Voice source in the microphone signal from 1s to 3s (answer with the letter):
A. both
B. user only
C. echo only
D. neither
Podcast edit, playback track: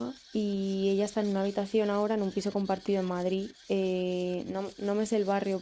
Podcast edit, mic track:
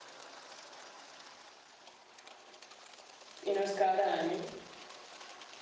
D